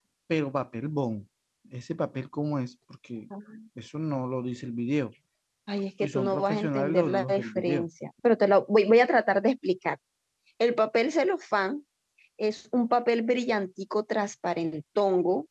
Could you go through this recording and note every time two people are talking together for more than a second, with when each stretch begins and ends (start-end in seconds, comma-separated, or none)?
6.0-7.9